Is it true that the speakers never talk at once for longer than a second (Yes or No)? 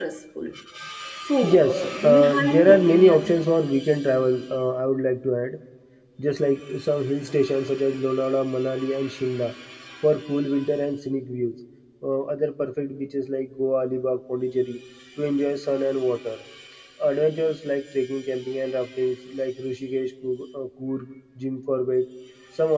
No